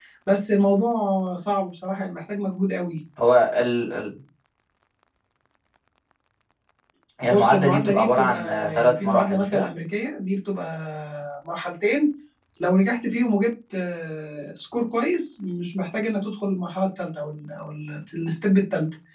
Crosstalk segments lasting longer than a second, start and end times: 7.2-9.7

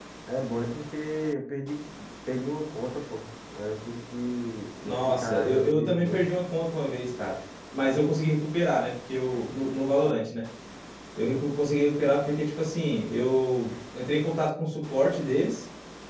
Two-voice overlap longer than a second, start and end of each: 4.8-6.2

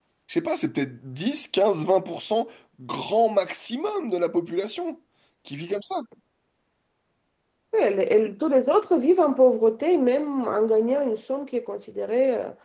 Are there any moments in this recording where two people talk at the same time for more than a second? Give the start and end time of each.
none

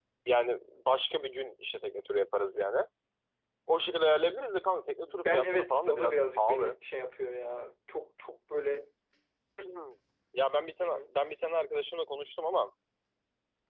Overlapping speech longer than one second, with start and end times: 5.0-6.8

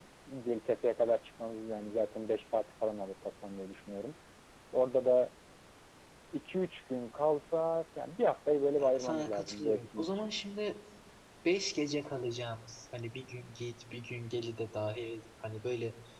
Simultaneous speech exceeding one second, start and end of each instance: 8.8-10.3

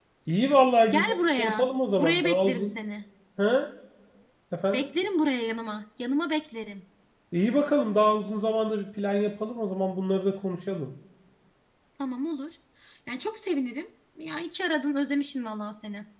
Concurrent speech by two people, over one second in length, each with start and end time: 0.9-2.7

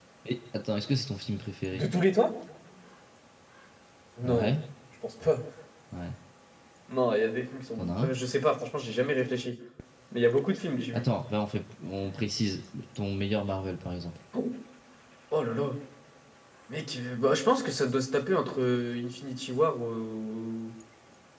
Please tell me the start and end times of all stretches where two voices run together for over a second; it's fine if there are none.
none

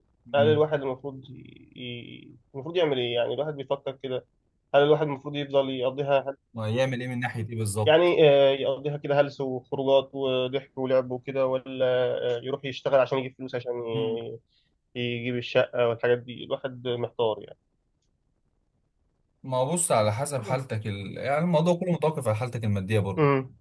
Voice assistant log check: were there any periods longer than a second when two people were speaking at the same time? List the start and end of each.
none

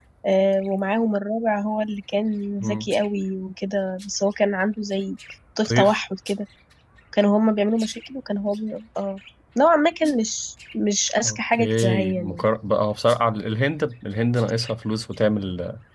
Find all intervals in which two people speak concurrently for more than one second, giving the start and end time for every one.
11.2-12.5

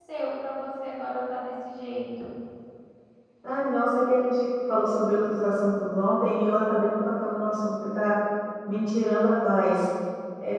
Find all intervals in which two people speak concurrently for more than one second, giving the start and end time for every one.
none

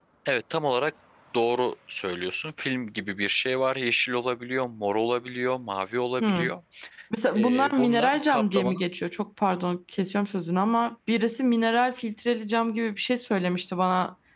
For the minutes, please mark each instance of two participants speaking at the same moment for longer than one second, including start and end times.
7.4-8.8

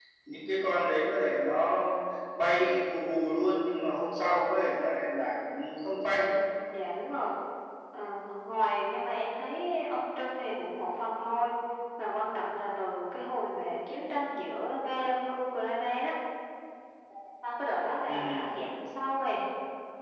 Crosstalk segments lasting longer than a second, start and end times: none

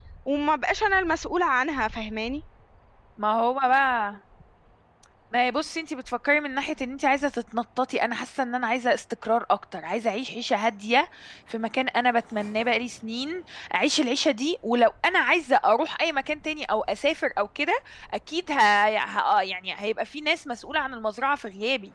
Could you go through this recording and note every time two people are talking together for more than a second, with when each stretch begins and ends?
none

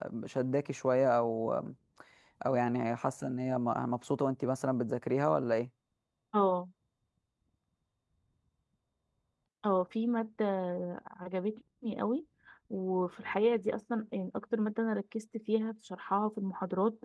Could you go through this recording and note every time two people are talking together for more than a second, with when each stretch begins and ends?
none

